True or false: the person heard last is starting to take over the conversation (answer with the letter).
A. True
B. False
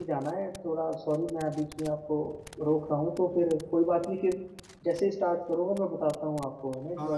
A